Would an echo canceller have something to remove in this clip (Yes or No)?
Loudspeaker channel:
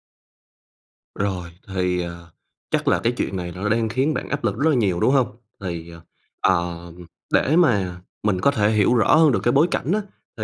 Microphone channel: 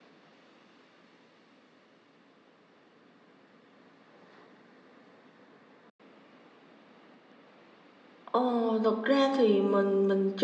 No